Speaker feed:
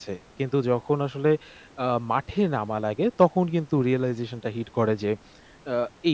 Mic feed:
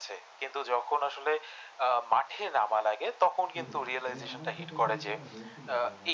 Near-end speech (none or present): present